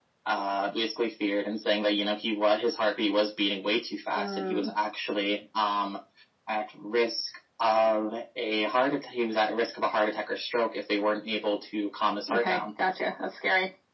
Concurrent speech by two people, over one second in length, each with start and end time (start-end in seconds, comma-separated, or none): none